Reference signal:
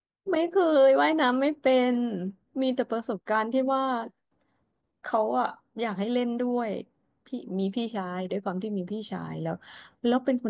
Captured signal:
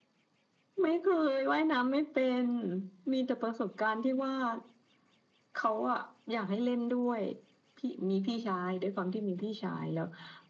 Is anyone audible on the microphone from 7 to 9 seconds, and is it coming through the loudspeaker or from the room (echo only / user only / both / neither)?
echo only